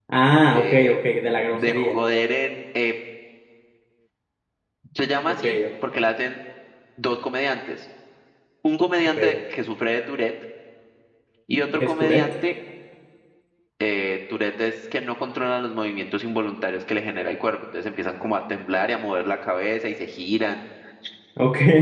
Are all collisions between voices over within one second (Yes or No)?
No